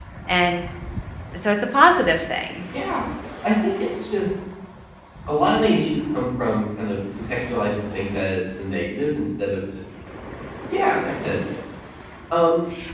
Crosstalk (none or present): none